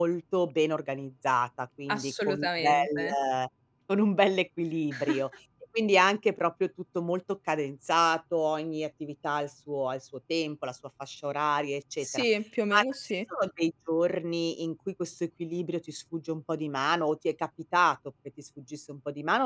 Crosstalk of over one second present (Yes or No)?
Yes